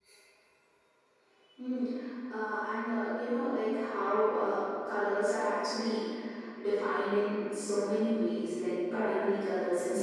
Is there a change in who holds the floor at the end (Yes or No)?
No